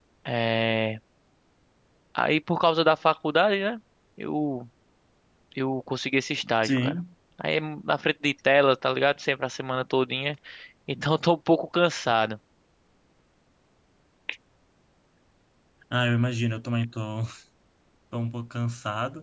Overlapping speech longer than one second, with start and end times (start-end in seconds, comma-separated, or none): none